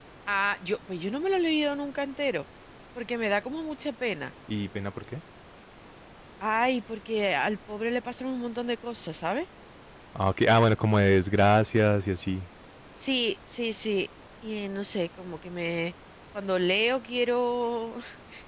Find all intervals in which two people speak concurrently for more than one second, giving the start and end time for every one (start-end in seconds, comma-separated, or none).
none